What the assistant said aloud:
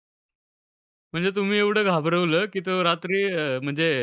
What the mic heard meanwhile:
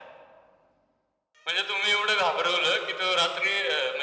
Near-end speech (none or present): none